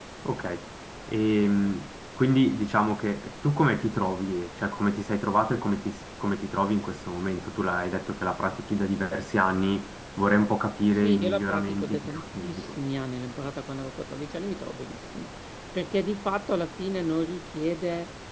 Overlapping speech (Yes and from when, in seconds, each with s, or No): Yes, from 11.0 s